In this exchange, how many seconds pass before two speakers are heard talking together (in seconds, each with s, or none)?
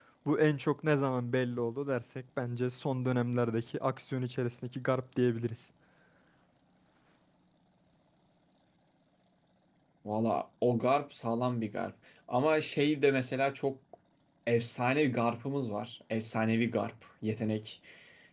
none